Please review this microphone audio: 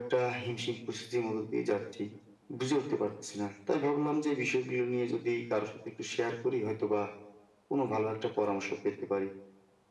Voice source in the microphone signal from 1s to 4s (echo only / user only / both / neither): echo only